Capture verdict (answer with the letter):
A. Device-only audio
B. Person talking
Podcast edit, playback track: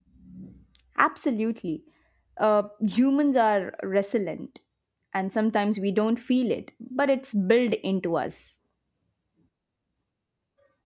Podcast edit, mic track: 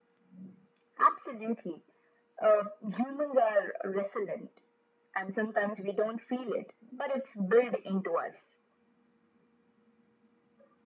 A